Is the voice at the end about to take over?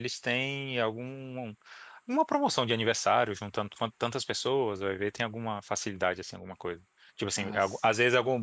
No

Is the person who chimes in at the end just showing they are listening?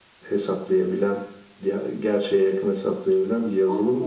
No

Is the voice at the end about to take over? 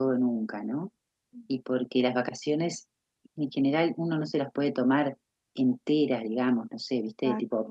No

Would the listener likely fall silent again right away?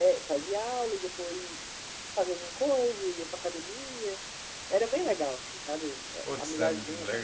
No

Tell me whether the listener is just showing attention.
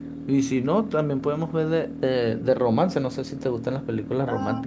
No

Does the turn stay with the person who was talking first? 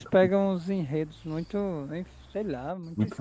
No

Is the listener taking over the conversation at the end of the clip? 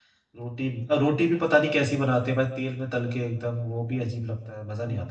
Yes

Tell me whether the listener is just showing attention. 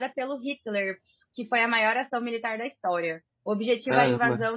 Yes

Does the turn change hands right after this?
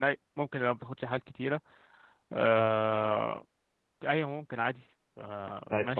Yes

